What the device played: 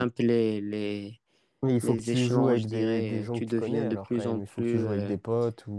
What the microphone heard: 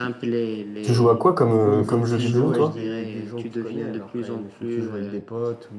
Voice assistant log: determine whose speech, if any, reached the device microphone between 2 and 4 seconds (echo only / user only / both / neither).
both